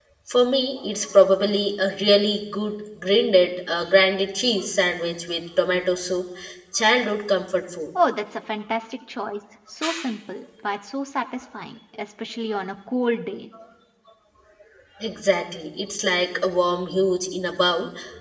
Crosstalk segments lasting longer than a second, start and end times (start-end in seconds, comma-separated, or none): none